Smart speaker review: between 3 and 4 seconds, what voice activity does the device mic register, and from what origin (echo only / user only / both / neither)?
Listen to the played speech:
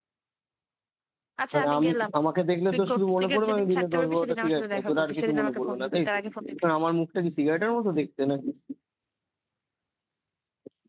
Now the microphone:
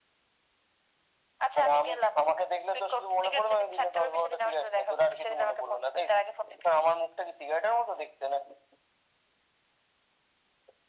echo only